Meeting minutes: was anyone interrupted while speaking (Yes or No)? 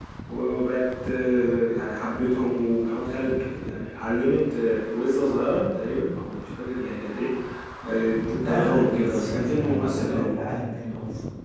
Yes